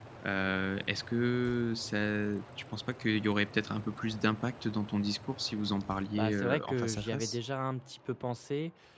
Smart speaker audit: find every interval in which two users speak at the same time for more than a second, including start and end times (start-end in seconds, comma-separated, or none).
6.2-7.4